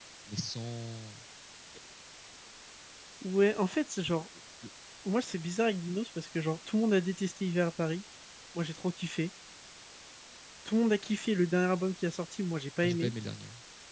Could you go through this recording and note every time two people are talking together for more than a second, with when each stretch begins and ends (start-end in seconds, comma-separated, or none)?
none